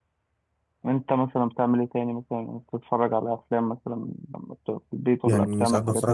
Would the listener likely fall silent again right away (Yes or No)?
No